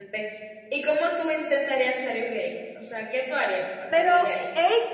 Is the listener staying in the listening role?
No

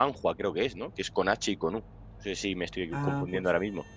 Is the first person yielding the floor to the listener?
No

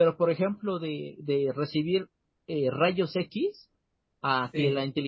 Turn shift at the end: No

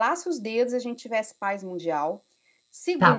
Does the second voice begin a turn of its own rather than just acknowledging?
Yes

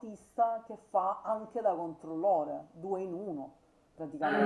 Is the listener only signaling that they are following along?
No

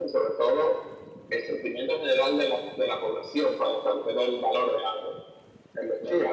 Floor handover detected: Yes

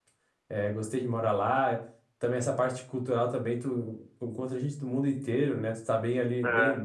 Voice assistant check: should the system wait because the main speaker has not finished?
Yes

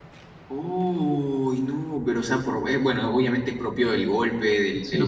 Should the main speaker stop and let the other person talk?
No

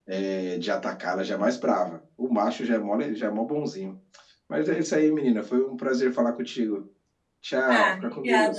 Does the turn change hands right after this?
Yes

